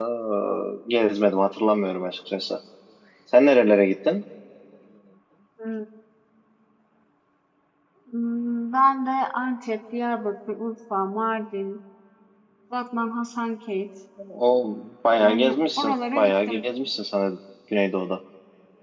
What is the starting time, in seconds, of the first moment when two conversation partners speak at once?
15.2 s

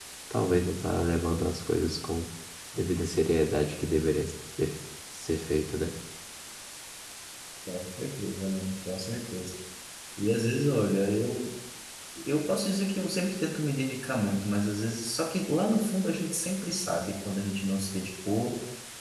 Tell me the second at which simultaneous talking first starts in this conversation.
none

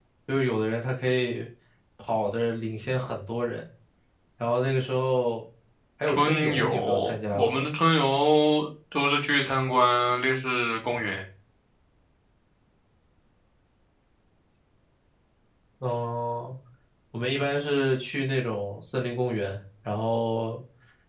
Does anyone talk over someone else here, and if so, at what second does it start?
6.1 s

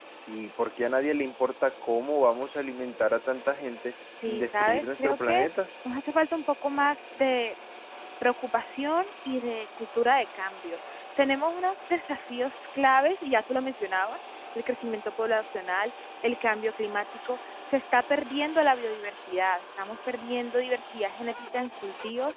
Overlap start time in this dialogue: 4.2 s

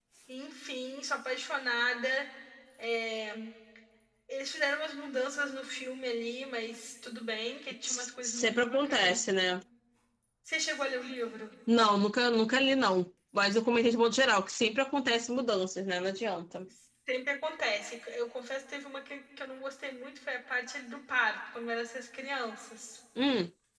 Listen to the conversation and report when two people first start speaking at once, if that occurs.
7.8 s

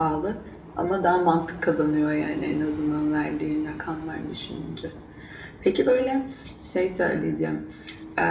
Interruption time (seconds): none

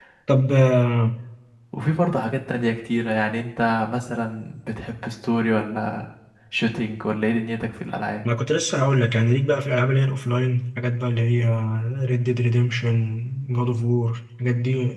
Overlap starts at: none

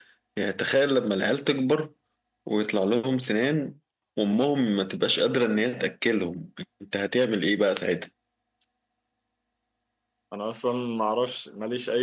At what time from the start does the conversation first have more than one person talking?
none

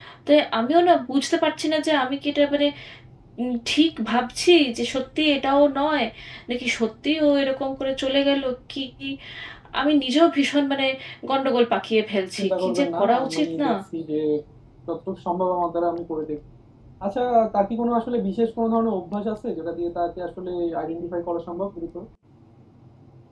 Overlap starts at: 12.4 s

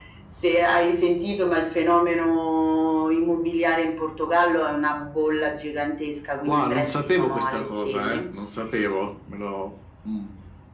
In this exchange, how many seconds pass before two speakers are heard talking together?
6.5 s

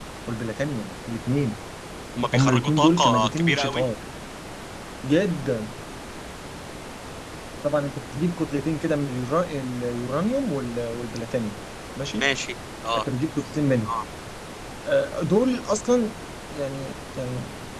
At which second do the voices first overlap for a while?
2.3 s

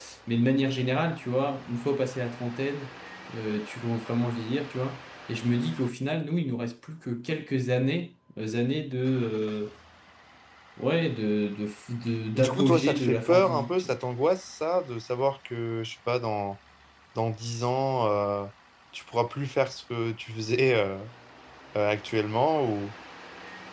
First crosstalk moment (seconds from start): 12.3 s

